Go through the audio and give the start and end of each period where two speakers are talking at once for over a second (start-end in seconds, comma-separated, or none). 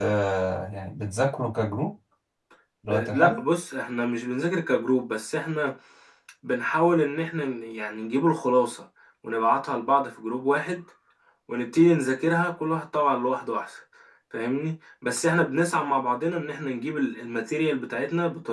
none